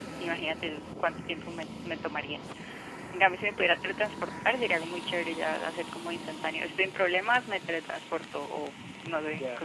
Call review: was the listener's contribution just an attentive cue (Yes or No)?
No